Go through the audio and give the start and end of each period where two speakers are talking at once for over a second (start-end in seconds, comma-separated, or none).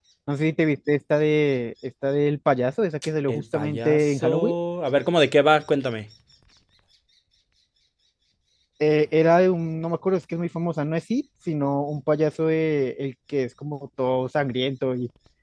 3.3-4.5